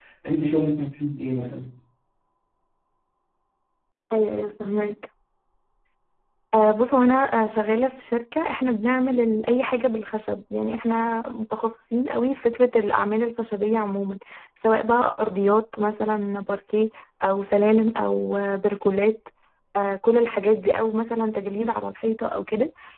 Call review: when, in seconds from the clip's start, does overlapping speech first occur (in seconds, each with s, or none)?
none